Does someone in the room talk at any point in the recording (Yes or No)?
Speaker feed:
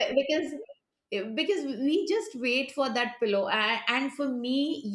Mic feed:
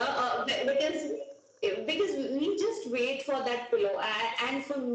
No